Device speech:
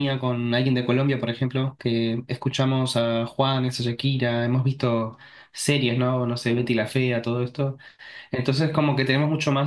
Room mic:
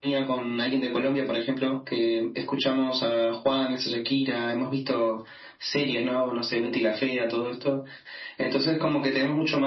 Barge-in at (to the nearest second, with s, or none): none